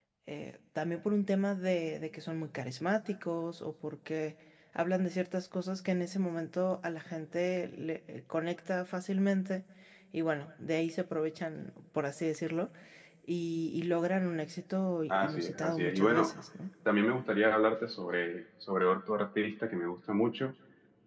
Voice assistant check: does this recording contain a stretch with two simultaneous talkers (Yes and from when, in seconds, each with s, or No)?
Yes, from 15.1 s